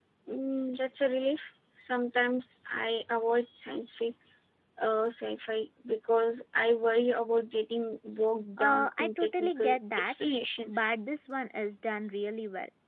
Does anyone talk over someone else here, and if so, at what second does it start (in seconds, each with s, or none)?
8.6 s